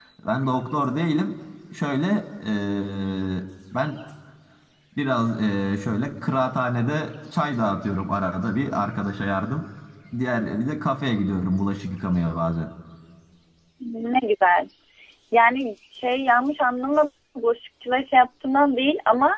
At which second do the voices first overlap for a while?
none

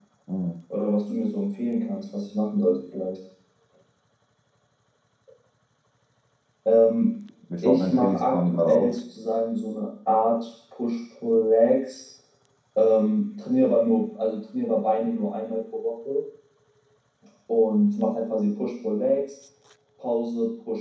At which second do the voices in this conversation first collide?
7.6 s

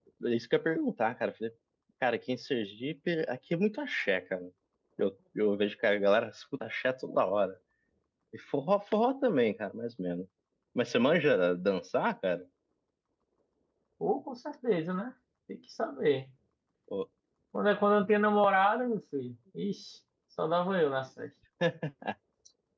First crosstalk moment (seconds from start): none

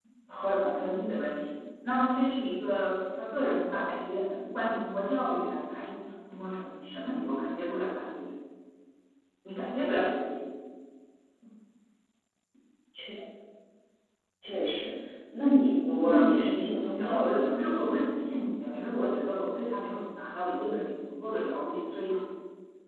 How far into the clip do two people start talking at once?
15.8 s

